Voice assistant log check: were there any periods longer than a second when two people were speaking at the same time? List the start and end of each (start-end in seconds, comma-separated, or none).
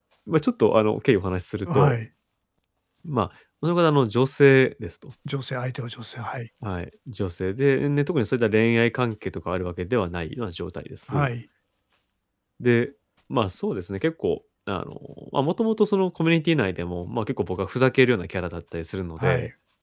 none